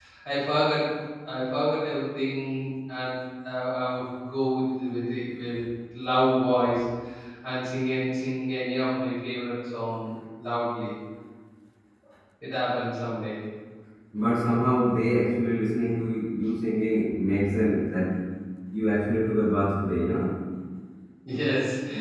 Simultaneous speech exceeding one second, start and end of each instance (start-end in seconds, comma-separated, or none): none